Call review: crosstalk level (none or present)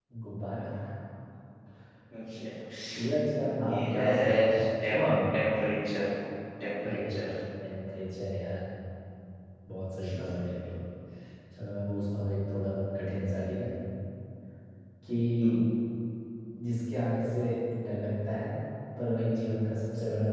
present